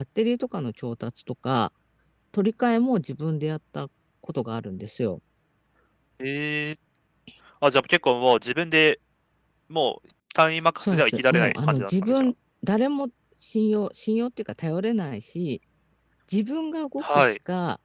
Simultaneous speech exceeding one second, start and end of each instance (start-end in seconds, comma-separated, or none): 10.8-12.3